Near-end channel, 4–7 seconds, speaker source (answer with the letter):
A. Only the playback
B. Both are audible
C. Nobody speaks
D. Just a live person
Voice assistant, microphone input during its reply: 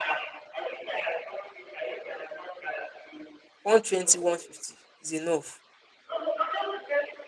B